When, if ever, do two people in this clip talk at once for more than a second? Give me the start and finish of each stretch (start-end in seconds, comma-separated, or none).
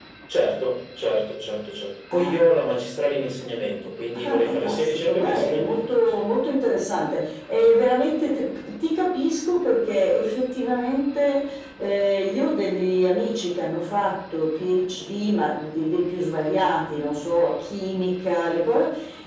4.2-6.2